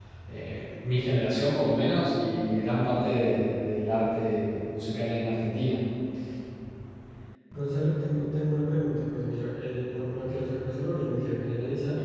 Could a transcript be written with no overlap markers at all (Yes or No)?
Yes